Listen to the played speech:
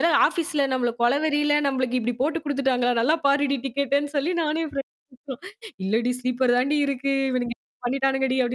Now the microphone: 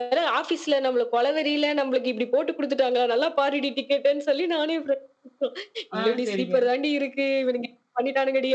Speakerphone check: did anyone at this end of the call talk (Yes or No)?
Yes